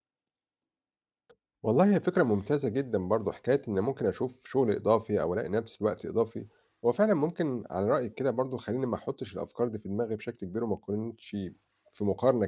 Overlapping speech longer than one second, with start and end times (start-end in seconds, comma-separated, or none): none